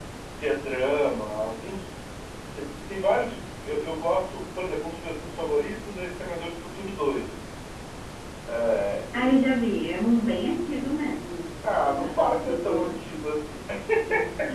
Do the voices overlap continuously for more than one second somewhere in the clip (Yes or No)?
Yes